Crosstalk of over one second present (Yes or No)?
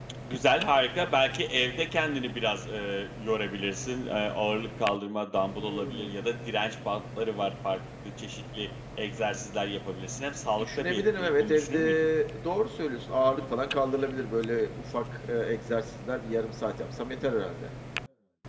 Yes